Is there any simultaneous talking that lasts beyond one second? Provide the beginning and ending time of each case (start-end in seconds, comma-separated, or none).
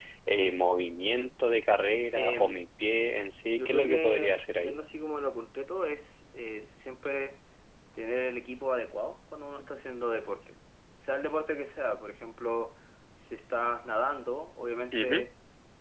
3.6-4.8